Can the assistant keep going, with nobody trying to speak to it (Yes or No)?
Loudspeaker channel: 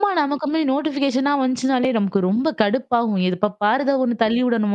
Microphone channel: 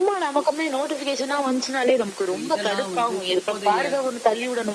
No